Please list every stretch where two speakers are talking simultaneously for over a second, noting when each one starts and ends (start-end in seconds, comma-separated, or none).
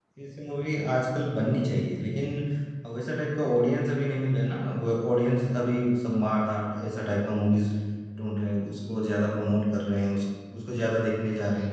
none